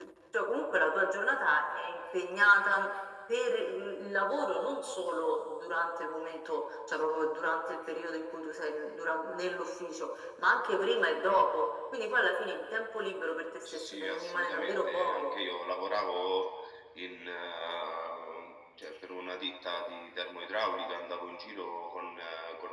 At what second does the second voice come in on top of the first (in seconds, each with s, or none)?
13.7 s